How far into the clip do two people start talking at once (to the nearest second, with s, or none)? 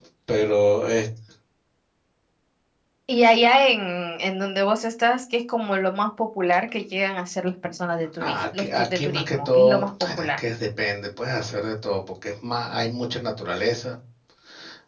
8 s